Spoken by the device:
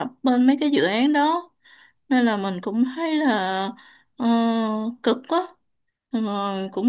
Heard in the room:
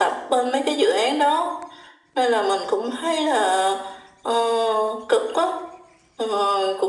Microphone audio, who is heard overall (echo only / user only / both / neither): echo only